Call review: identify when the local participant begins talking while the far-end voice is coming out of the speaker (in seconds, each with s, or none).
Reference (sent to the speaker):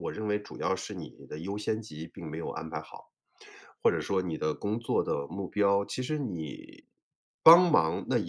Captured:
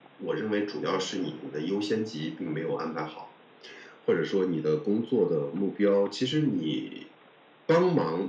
none